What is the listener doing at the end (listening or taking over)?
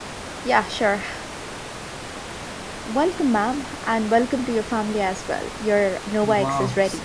taking over